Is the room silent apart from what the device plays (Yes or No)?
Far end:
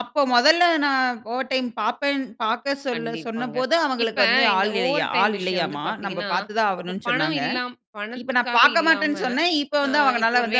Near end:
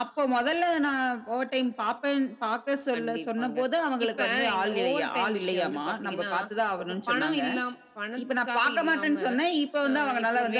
Yes